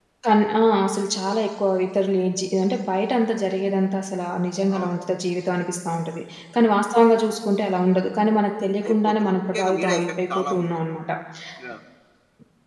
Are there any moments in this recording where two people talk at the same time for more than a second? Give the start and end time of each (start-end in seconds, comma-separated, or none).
8.9-10.8